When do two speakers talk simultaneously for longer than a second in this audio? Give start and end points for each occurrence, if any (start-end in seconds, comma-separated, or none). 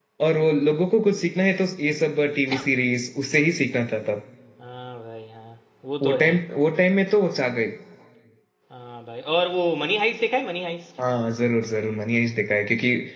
none